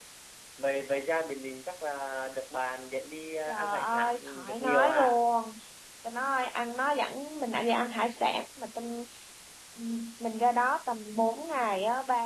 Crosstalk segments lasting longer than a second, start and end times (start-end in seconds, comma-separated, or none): 3.5-5.2